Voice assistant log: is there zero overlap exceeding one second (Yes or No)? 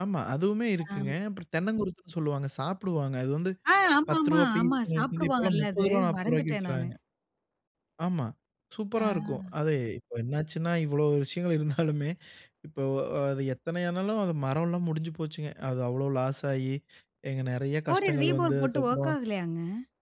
No